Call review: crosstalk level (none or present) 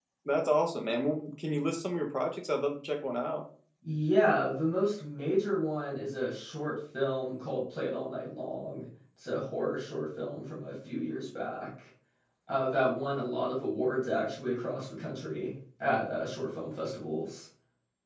none